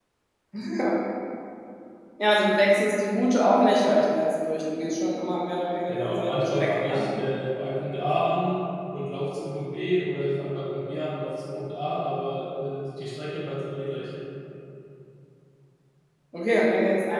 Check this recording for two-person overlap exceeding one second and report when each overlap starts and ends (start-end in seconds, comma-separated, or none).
5.9-7.1